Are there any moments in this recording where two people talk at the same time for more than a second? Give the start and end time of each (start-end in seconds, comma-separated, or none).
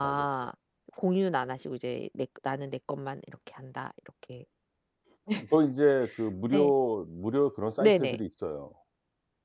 none